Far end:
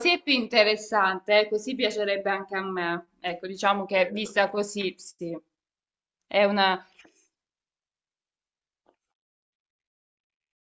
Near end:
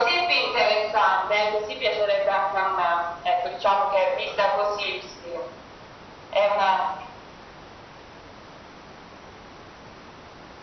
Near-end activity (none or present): none